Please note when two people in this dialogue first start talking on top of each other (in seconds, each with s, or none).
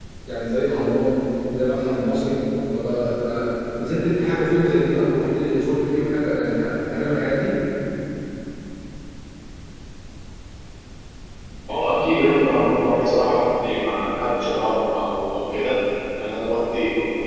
none